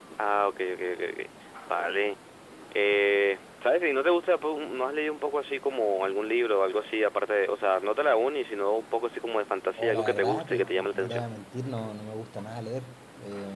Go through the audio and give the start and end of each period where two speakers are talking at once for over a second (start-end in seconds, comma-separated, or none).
9.8-11.3